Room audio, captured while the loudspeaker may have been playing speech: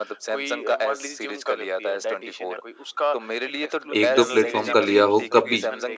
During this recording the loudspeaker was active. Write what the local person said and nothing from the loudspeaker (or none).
1-2 प्लेटफ़ॉर्म का लिया हो कभी,